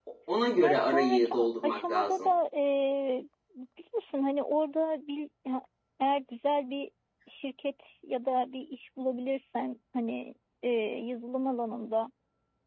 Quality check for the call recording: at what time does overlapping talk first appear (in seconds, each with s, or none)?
0.6 s